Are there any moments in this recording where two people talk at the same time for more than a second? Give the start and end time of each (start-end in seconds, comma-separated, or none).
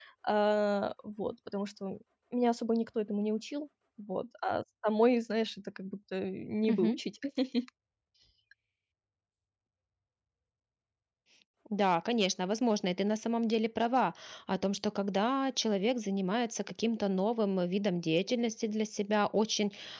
none